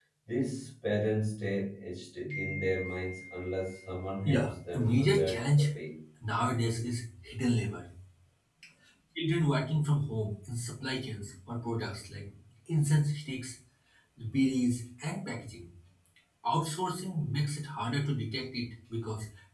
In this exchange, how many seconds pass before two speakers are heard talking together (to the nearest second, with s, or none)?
4 s